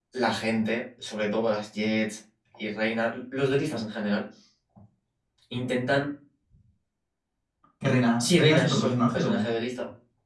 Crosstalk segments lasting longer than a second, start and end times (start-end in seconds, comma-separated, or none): 8.2-9.5